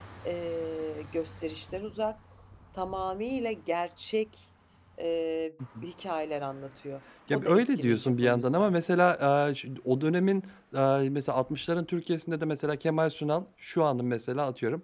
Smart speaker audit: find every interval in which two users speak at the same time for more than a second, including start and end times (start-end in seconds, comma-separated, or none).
7.3-8.7